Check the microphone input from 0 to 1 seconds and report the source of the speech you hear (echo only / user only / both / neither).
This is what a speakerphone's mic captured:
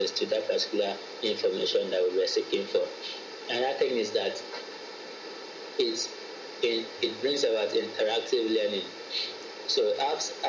echo only